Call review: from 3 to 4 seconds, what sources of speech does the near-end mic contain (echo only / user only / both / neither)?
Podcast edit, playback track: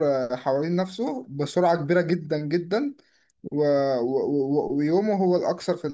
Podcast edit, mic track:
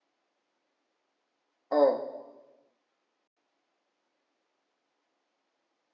neither